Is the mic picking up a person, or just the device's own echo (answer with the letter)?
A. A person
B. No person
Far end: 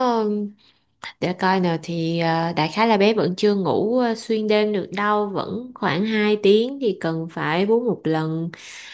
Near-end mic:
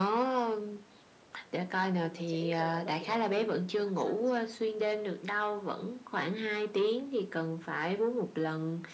A